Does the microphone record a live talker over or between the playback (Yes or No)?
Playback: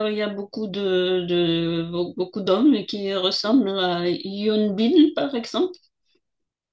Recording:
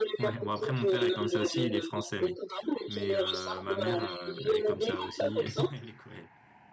Yes